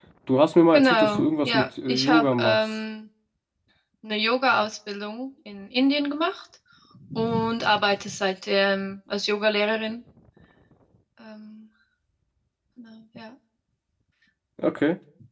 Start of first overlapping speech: 0.7 s

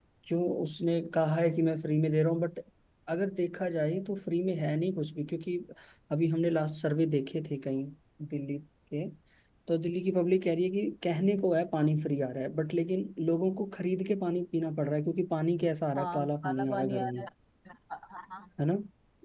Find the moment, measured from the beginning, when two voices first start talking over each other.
15.9 s

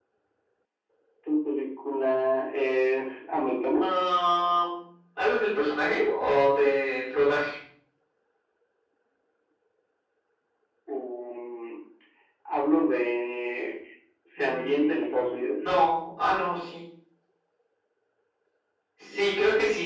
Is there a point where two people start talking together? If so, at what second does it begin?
14.4 s

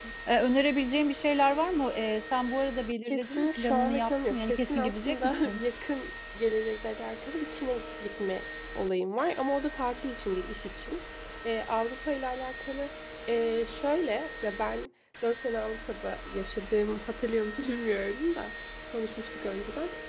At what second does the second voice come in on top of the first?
3.0 s

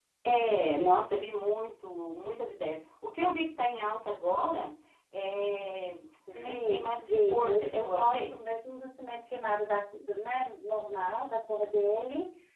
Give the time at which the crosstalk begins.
6.3 s

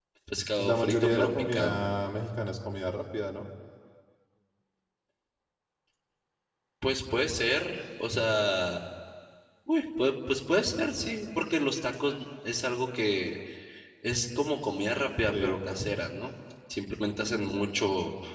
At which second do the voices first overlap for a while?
0.6 s

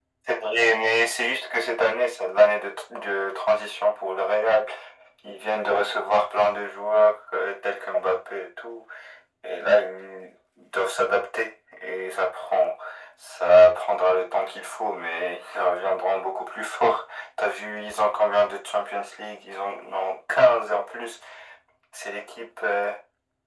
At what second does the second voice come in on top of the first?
none

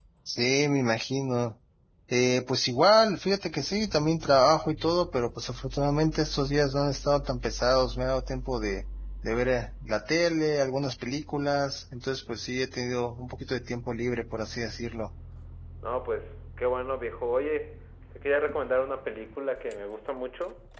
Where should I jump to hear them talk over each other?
none

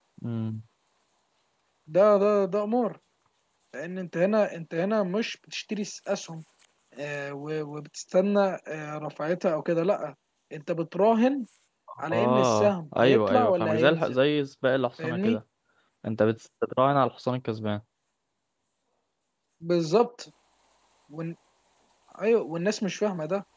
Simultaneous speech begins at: 12.1 s

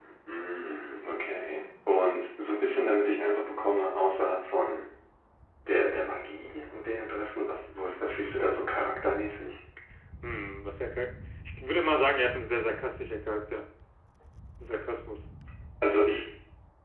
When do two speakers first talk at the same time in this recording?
none

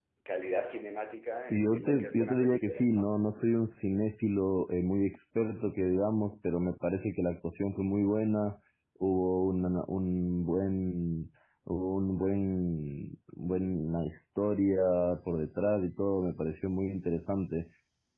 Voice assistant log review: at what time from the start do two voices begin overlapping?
1.5 s

